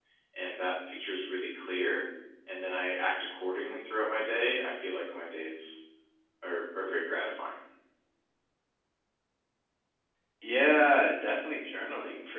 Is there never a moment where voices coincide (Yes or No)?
Yes